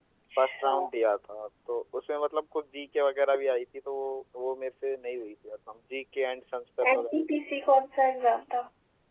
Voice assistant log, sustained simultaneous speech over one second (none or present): none